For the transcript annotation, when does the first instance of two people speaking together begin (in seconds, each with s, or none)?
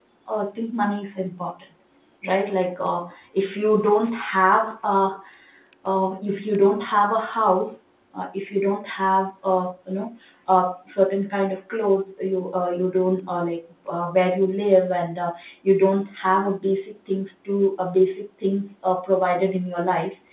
none